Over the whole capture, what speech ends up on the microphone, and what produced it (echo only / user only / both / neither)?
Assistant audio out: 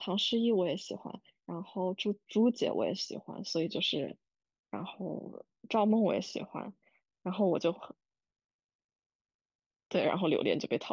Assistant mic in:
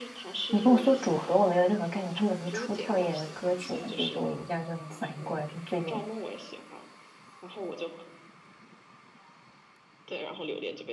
both